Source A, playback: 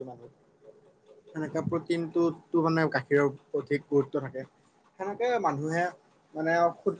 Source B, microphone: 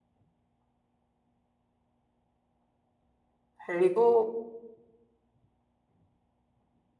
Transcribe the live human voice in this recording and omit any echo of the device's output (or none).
হেৰিবোৰ